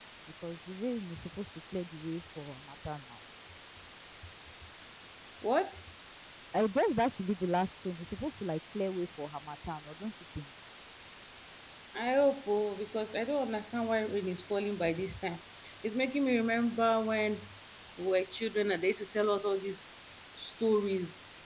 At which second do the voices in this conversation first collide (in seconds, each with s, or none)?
none